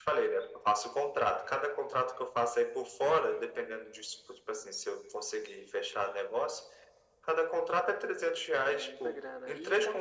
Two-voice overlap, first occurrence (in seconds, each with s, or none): 8.5 s